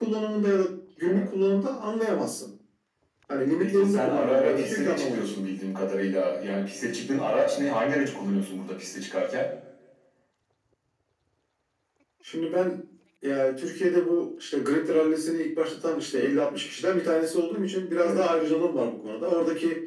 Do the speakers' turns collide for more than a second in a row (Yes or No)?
Yes